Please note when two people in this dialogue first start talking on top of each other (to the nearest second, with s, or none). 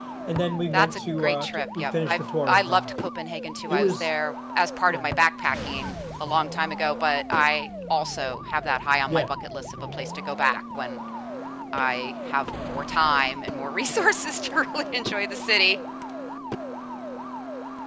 1 s